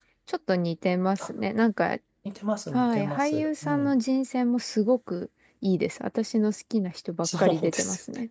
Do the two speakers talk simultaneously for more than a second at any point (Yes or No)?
Yes